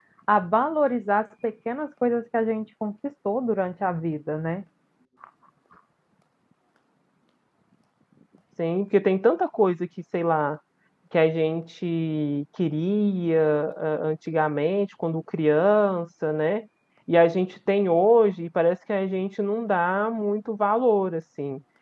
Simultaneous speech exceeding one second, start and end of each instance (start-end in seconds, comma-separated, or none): none